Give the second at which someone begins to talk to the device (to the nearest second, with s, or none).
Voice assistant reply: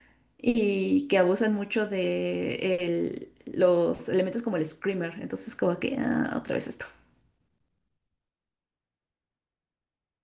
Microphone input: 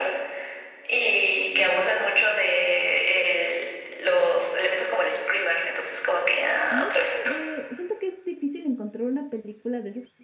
7 s